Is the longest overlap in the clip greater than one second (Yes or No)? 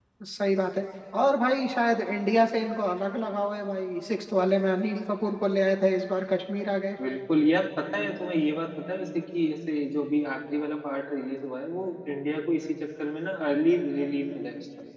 No